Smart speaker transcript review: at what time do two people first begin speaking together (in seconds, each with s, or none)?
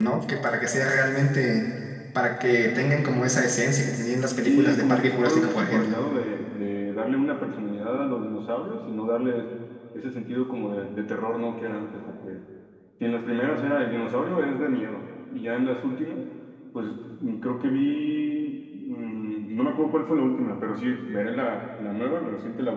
4.4 s